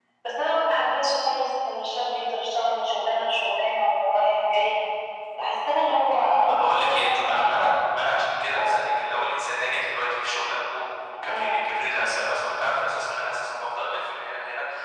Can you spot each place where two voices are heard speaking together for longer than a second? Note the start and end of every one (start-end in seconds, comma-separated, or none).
6.5-7.8